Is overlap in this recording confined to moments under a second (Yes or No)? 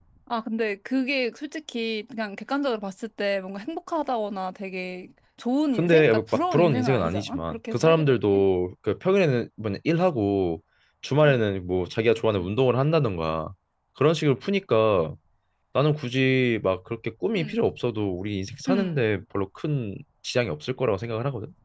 No